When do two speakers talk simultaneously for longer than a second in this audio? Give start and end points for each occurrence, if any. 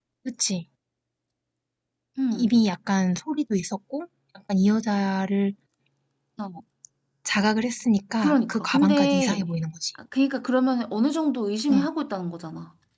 8.2-9.4

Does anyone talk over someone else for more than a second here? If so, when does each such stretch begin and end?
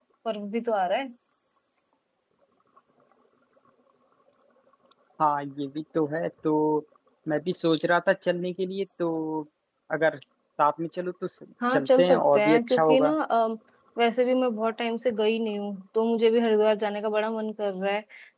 11.7-13.1

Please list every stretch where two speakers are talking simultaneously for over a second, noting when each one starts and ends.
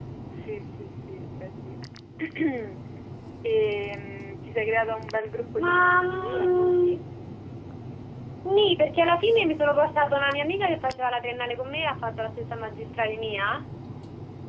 5.6-6.9

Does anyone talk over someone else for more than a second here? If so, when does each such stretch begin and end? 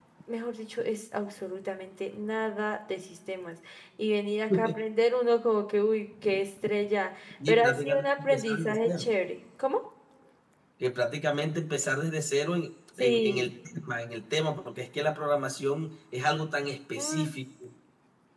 7.5-9.1

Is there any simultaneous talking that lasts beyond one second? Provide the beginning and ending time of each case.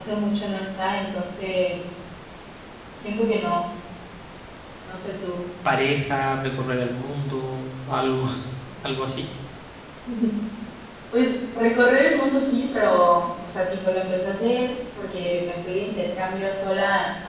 none

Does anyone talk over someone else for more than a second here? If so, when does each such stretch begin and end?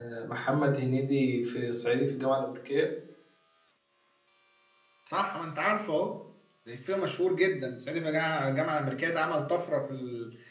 none

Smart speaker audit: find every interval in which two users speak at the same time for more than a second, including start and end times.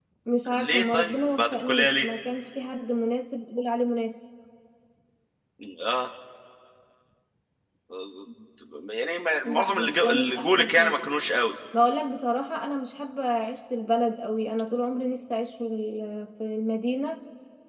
0.6-2.1, 9.4-10.9

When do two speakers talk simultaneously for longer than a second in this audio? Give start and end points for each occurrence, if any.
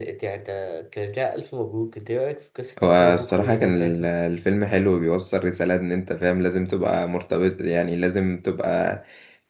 2.8-4.1

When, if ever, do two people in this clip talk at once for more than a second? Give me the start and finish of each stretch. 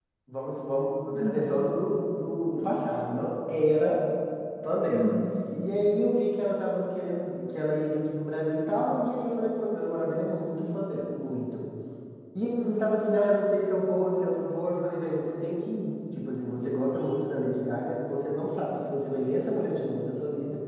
none

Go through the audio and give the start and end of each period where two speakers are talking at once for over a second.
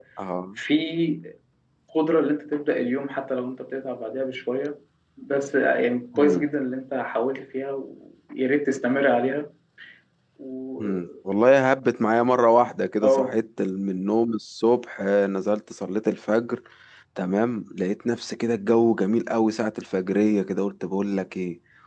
none

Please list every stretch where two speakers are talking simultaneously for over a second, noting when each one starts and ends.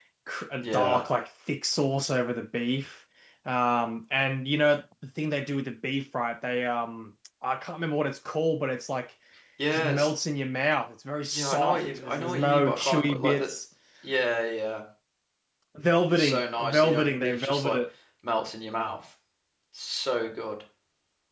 11.3-13.5, 16.1-17.8

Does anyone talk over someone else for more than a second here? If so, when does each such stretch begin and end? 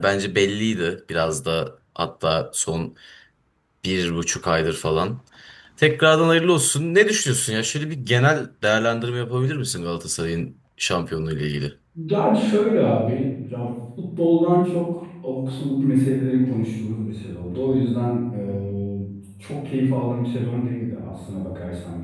none

